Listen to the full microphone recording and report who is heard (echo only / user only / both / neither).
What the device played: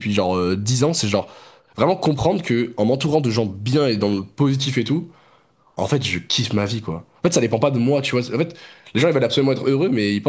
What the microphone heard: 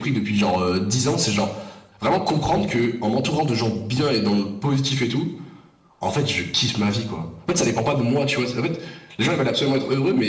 echo only